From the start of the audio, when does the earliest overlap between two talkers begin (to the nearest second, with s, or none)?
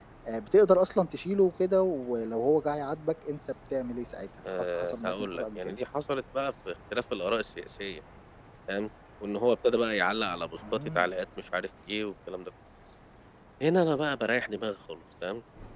4 s